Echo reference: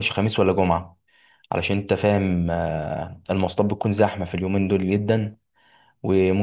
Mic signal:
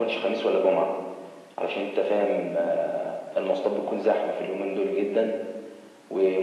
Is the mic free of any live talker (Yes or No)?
Yes